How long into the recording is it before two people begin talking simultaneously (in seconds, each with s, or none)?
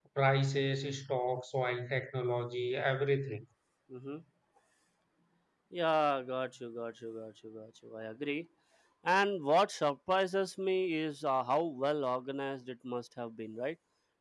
none